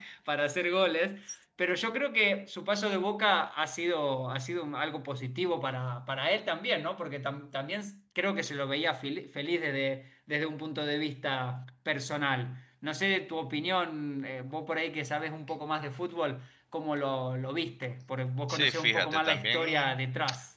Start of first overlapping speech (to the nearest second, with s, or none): 18 s